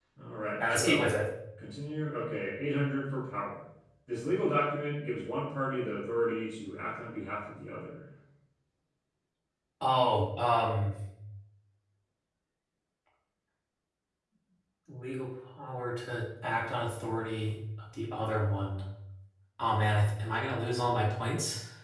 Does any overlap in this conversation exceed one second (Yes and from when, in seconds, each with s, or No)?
No